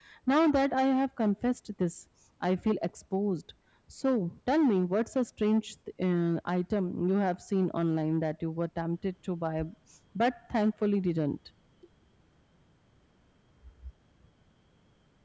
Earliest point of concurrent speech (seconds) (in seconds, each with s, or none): none